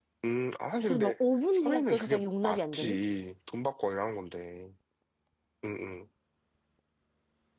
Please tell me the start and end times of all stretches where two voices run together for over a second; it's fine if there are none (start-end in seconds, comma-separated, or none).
1.5-3.0